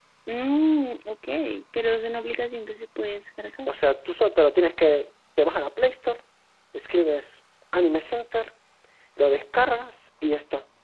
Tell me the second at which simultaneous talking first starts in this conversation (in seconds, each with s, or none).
none